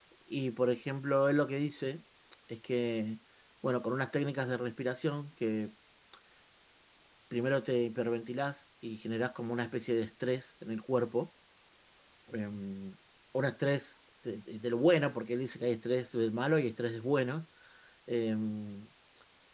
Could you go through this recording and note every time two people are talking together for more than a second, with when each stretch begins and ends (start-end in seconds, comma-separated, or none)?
none